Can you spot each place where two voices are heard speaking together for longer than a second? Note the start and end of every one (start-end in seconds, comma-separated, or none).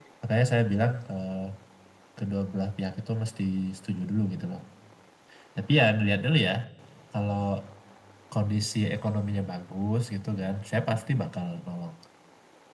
none